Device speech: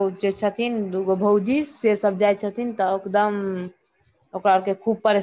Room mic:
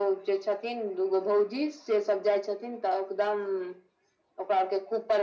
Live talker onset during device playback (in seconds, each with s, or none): none